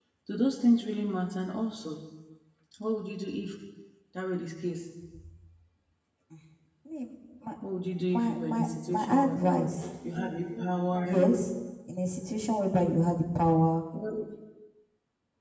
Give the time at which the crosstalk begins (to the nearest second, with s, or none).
8 s